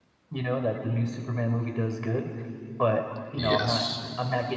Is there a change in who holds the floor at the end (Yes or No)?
No